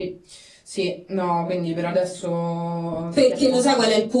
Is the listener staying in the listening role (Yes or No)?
No